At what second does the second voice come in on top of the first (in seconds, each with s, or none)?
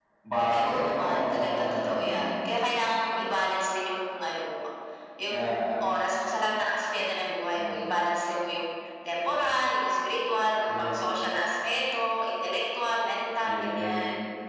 0.5 s